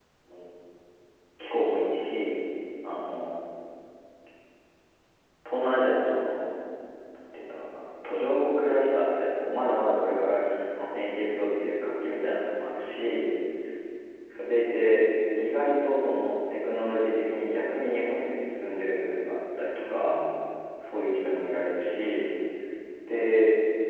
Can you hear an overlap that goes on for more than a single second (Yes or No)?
No